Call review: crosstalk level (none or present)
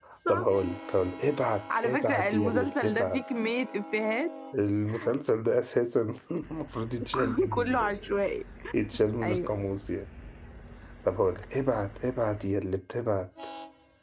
present